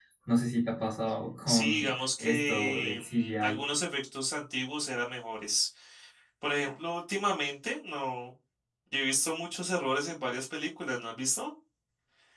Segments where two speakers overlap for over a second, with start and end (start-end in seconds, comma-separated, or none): 1.5-3.6